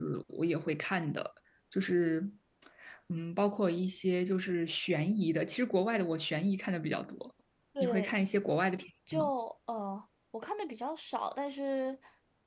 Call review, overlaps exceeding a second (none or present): none